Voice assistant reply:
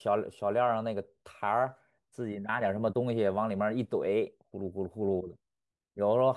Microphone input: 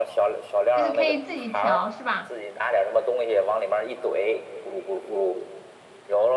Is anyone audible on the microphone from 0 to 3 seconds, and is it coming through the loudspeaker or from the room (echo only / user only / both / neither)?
both